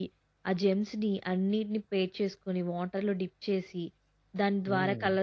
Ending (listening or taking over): listening